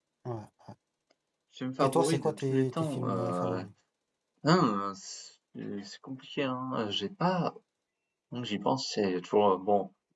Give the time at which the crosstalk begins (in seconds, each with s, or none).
1.8 s